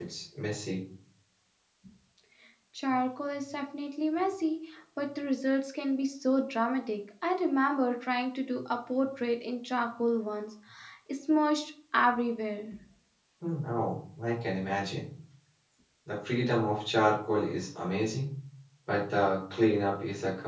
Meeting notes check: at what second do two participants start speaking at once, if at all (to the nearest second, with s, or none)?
none